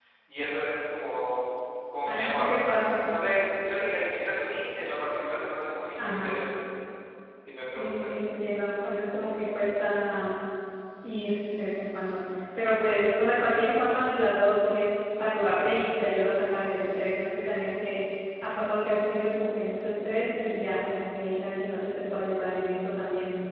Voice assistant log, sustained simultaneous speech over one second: none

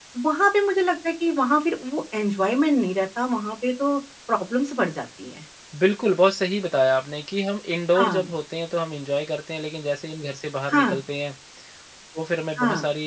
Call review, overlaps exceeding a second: none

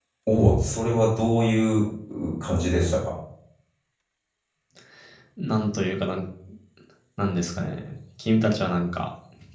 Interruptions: none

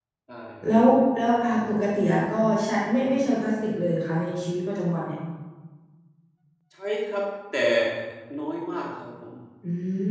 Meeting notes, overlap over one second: none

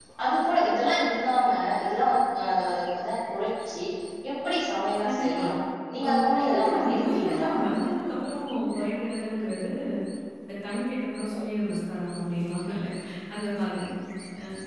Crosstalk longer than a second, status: present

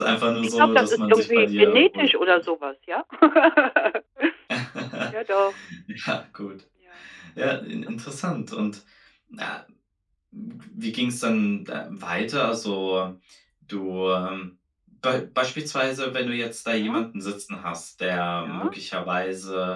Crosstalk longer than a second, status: present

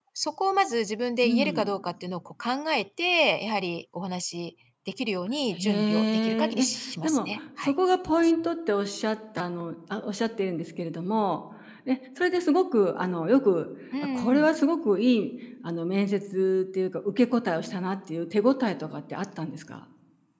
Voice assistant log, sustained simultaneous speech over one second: present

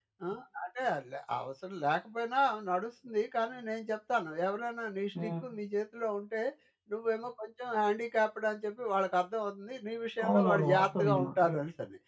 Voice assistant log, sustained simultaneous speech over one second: present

